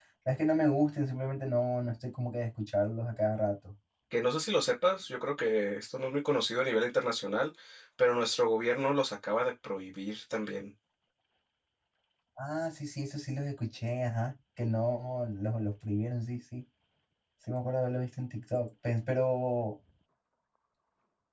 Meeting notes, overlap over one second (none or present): none